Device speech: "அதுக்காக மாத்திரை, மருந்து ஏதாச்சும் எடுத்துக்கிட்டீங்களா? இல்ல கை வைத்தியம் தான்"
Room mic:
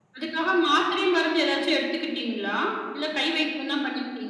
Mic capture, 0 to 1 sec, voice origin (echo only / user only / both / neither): echo only